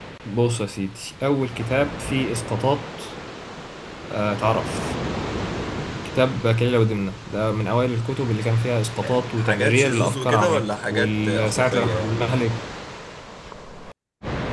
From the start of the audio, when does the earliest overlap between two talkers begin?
9.3 s

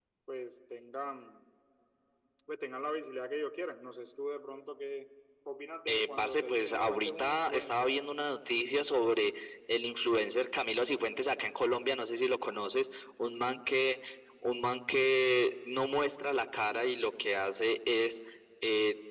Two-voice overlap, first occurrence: 5.9 s

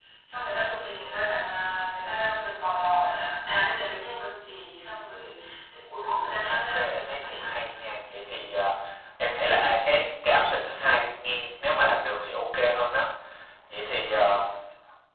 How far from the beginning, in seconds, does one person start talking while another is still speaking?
6.5 s

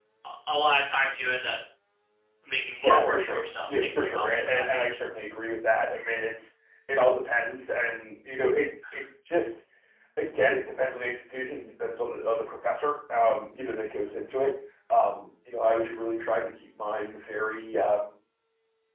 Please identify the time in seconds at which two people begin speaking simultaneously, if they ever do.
2.8 s

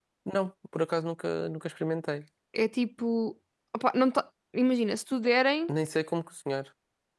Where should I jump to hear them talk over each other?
none

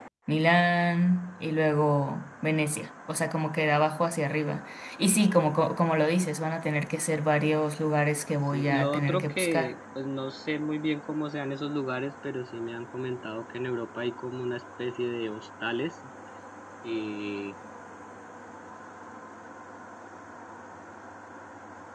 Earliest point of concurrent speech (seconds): 8.5 s

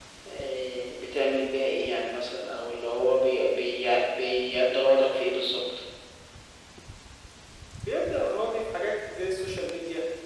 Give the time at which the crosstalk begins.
none

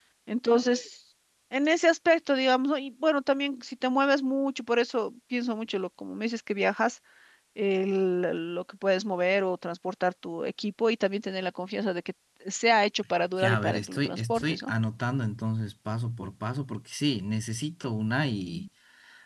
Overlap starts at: 13.4 s

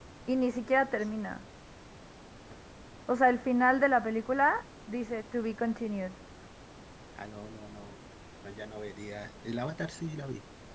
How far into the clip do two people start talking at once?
none

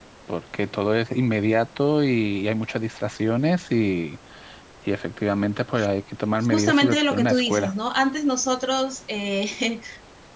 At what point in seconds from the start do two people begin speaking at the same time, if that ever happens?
6.5 s

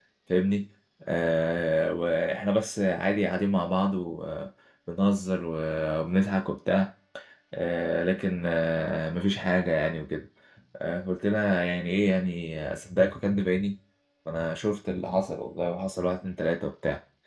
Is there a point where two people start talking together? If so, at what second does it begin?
none

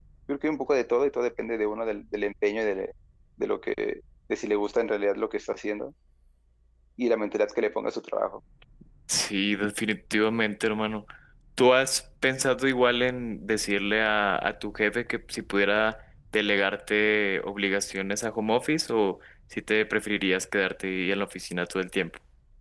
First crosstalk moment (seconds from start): none

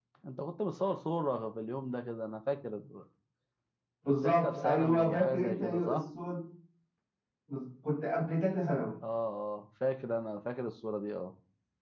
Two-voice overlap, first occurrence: 4.1 s

